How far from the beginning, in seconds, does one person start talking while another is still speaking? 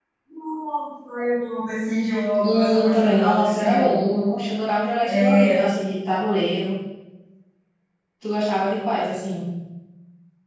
2 s

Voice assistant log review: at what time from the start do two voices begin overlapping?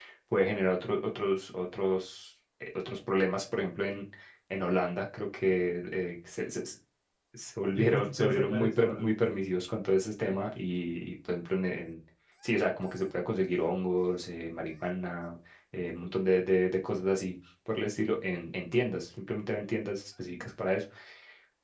8 s

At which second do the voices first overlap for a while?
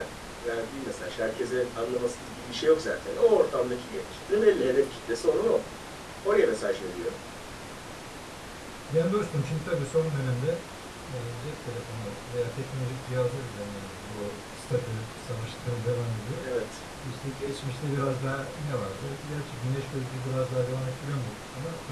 none

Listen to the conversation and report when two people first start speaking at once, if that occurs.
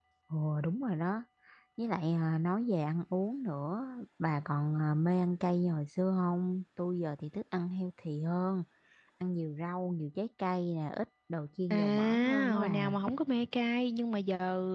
12 s

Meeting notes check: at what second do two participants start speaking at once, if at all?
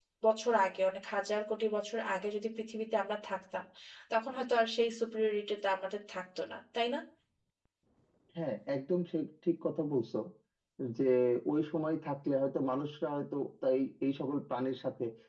none

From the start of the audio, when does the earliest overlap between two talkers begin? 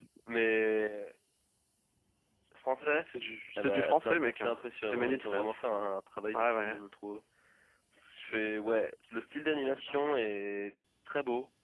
4 s

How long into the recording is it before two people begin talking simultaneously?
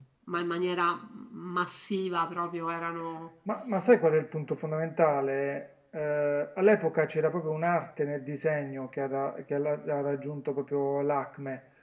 none

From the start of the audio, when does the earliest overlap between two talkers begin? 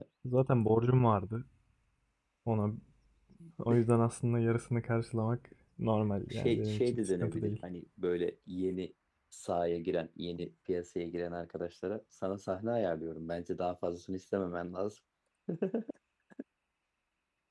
6 s

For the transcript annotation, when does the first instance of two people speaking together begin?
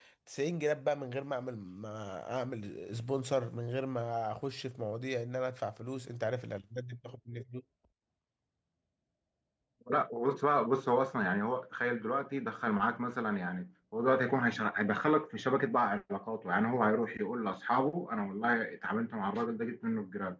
none

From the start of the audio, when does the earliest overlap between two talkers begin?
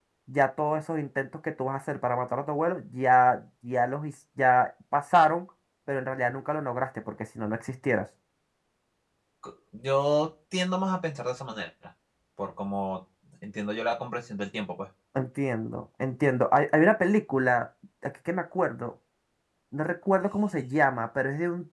none

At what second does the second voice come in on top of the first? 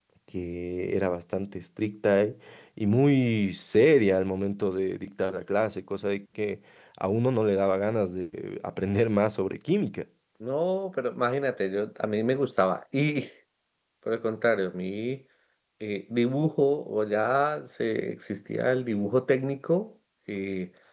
none

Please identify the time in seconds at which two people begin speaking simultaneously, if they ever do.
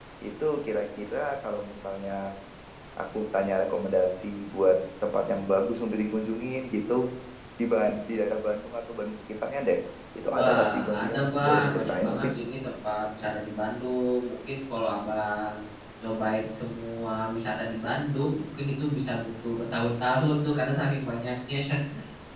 10 s

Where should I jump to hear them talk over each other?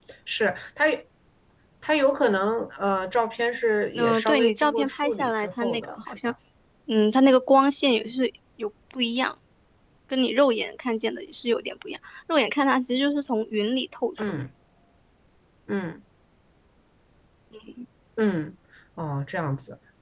4 s

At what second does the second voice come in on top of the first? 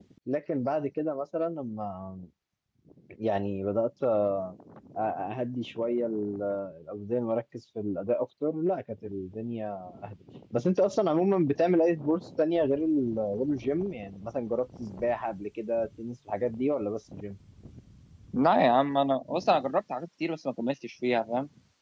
none

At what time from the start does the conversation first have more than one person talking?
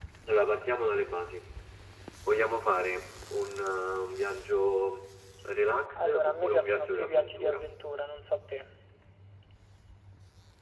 6 s

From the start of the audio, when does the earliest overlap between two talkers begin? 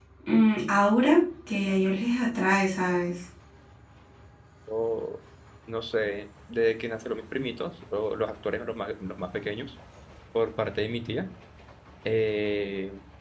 none

